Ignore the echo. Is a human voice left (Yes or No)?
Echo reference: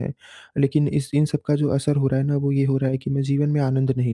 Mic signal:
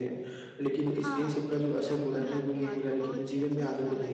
Yes